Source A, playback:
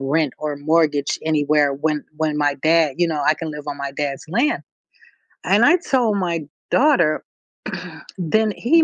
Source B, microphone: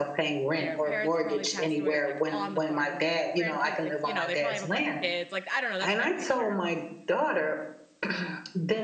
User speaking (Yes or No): Yes